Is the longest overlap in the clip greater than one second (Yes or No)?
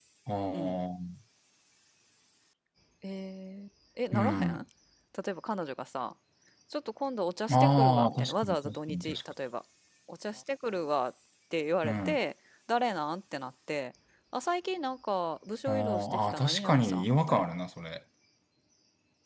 Yes